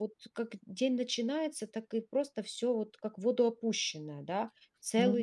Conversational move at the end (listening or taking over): taking over